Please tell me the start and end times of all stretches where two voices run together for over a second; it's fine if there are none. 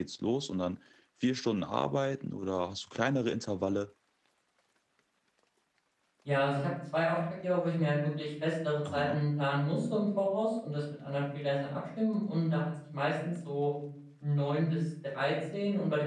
none

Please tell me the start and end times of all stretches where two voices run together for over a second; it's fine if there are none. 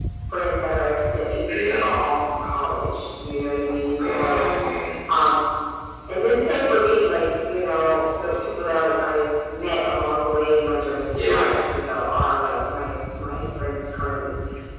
none

